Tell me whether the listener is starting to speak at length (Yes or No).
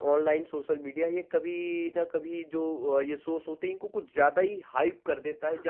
No